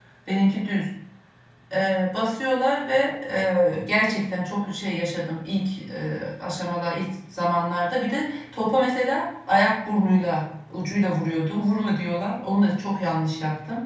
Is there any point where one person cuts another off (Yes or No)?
No